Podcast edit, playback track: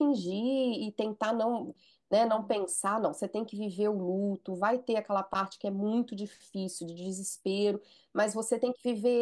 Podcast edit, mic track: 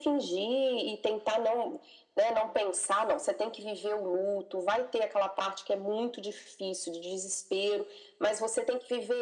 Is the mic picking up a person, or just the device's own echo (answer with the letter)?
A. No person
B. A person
A